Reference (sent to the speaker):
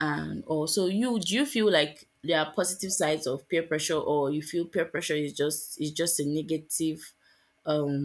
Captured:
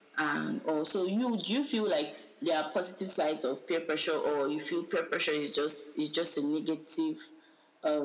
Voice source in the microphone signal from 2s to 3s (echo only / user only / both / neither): echo only